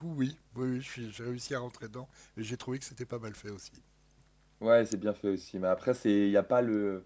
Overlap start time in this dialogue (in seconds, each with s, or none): none